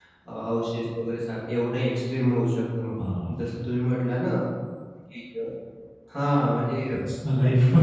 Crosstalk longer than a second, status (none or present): none